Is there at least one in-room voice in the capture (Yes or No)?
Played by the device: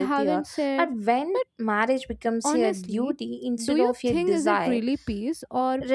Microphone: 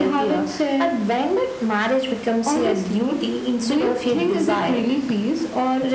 No